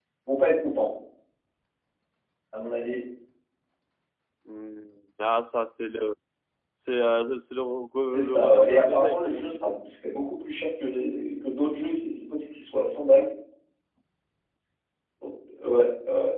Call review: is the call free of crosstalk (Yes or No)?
No